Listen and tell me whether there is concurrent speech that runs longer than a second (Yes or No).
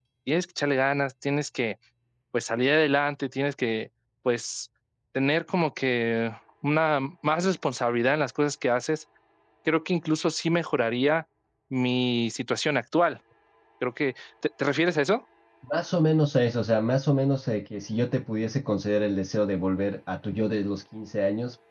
No